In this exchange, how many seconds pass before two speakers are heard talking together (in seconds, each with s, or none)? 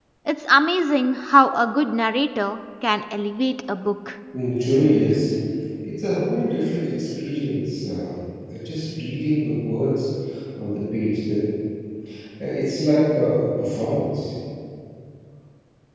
none